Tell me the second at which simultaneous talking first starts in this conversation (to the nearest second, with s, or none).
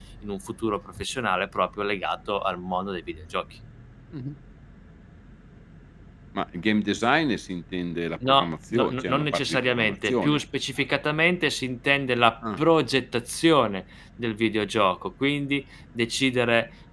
8 s